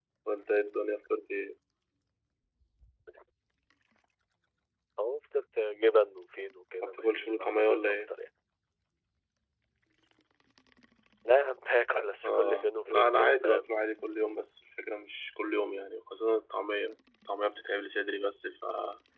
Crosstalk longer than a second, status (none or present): present